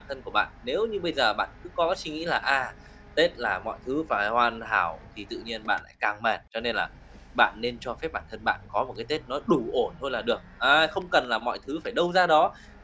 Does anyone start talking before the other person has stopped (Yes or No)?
No